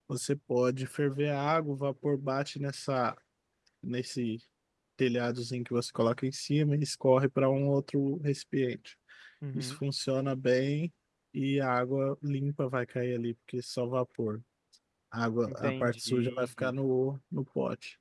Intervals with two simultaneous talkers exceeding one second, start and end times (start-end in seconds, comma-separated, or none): 15.5-16.7